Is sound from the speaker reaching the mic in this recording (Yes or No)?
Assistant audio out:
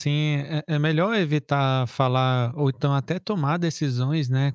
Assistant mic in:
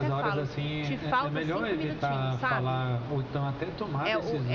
Yes